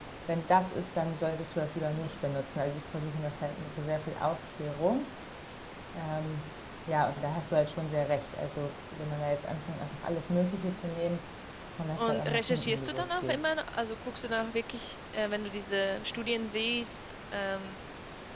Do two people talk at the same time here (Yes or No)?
Yes